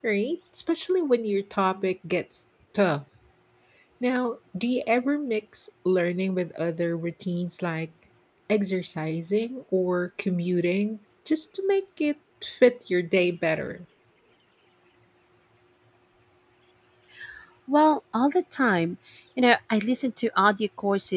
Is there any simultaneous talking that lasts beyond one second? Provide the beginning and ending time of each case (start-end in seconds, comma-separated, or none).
none